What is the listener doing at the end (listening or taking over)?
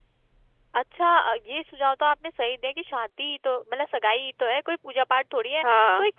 listening